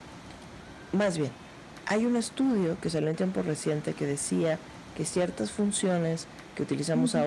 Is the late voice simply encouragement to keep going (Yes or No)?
Yes